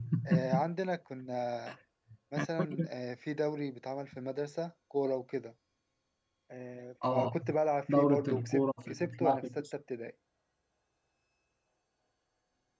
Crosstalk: present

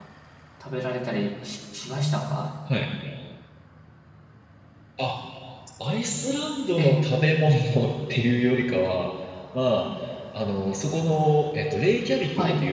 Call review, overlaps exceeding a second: none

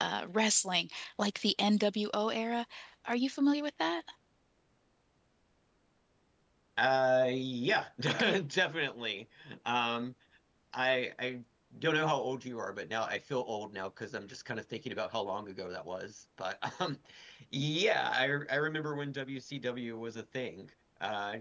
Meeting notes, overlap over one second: none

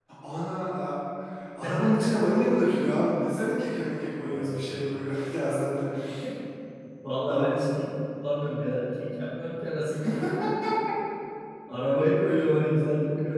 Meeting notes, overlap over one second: none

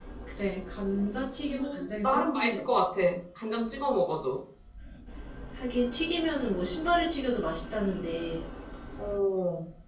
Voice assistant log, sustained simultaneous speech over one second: present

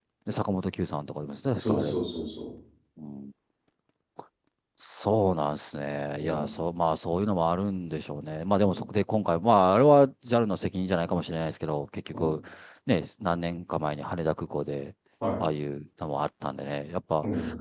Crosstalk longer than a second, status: none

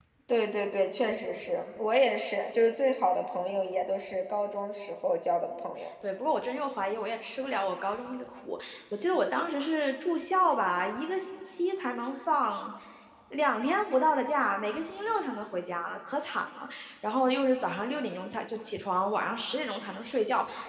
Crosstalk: none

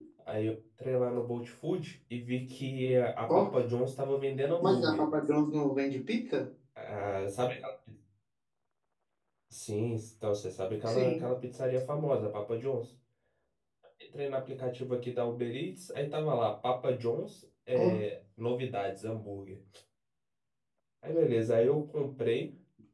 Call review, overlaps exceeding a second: none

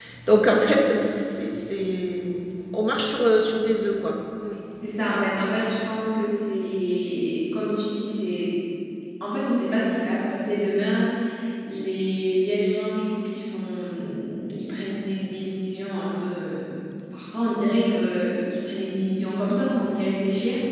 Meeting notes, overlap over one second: none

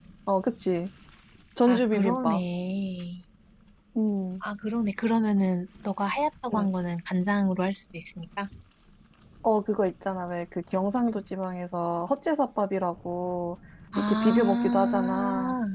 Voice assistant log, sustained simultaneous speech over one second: present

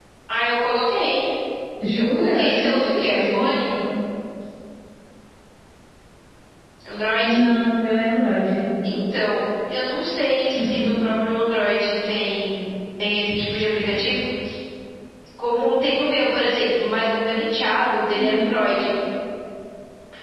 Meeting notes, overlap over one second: present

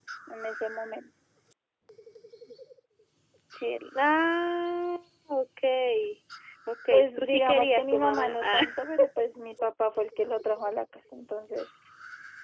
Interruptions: present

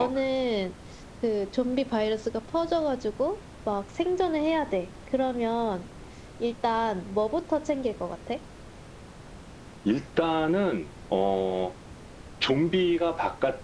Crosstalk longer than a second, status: none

